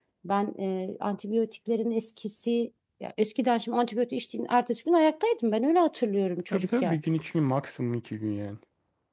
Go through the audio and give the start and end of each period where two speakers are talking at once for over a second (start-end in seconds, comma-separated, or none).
none